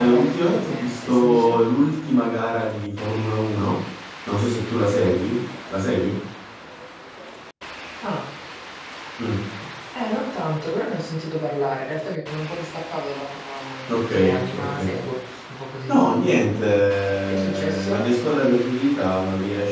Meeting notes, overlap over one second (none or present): present